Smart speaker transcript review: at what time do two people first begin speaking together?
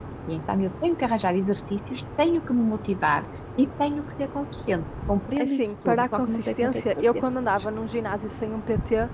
5.4 s

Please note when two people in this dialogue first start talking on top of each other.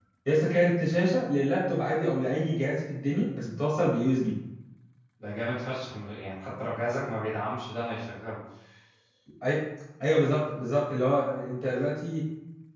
none

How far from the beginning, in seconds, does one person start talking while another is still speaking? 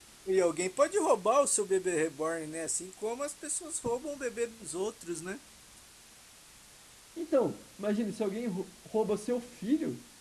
none

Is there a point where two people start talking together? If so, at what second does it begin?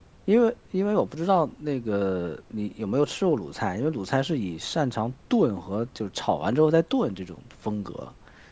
none

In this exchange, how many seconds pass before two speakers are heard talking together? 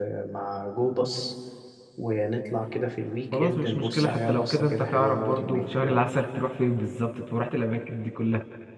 3.3 s

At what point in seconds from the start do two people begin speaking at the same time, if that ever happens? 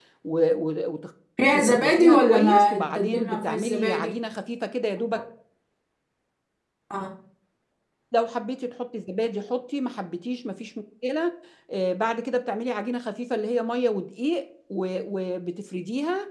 1.5 s

